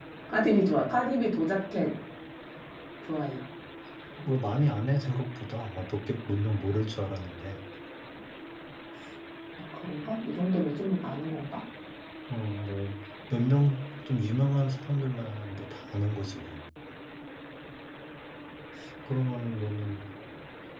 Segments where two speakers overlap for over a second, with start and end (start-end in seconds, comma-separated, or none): none